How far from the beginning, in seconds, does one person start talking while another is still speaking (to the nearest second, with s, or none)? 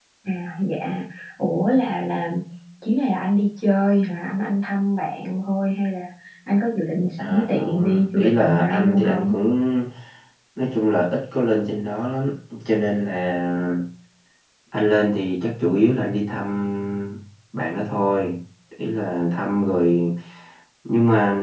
7 s